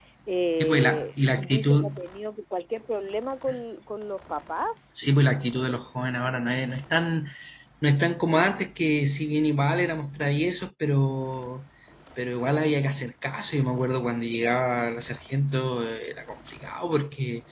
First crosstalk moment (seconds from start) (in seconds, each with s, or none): 0.6 s